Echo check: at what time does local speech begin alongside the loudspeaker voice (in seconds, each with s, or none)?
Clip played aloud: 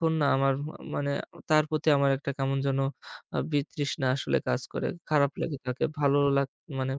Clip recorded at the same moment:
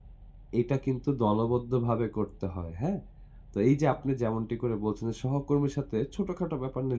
0.6 s